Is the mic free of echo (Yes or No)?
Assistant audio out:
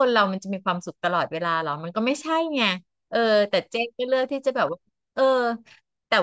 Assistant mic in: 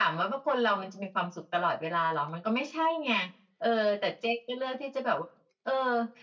No